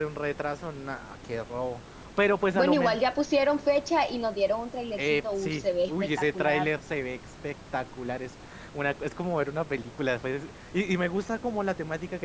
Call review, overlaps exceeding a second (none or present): present